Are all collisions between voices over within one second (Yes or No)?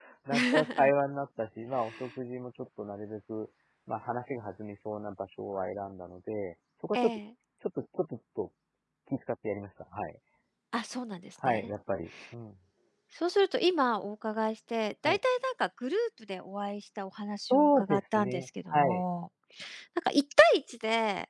No